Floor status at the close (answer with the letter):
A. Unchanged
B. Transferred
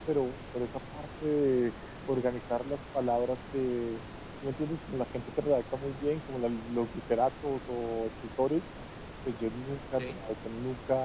A